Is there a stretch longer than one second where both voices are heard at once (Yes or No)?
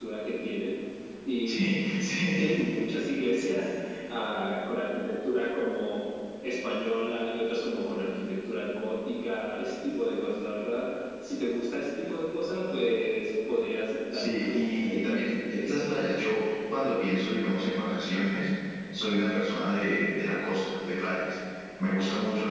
Yes